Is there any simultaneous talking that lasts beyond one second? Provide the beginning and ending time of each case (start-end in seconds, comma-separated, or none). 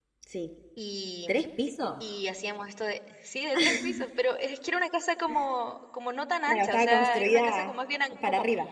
6.5-7.7